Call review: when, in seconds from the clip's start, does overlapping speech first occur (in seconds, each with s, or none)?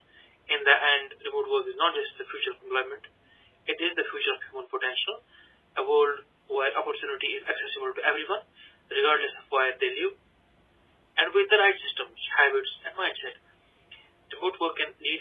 none